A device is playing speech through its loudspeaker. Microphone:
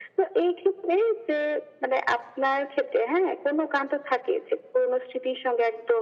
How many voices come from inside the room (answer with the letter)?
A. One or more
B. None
B